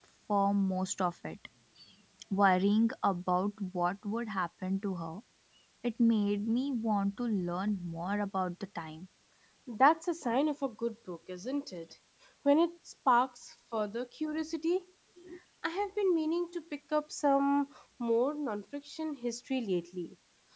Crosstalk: none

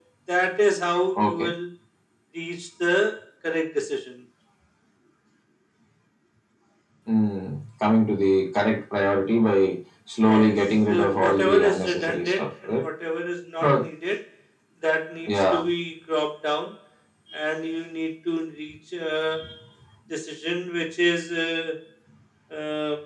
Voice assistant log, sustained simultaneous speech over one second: present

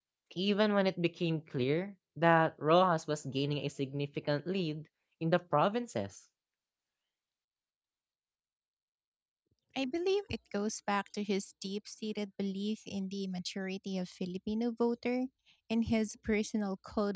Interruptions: none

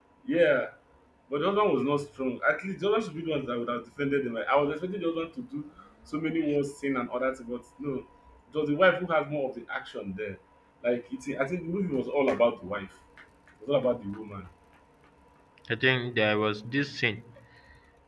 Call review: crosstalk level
none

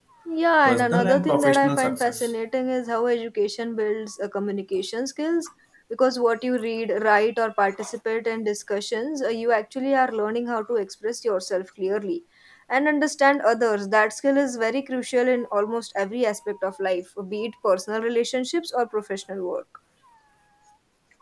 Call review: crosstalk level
present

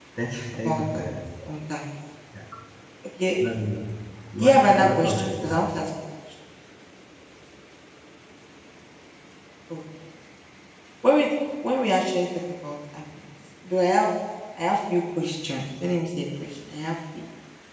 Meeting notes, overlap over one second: present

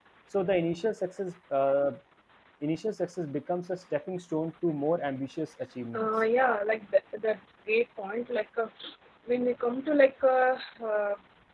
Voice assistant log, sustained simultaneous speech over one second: none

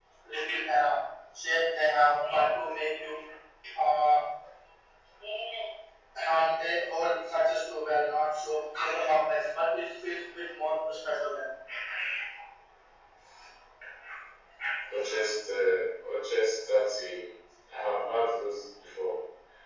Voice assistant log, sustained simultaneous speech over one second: none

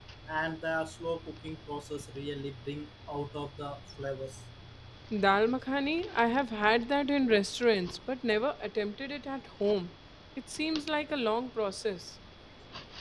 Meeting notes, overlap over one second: none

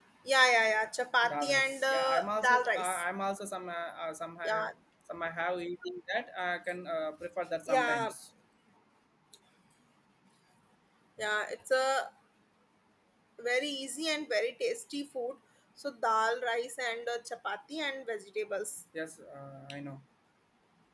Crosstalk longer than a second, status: present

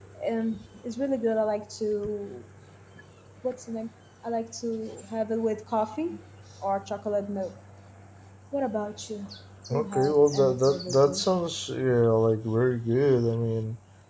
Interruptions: present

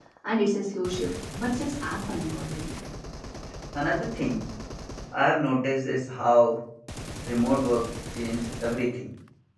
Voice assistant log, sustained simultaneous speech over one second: none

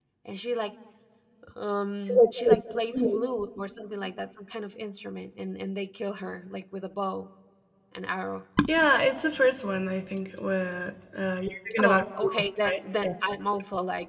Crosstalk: present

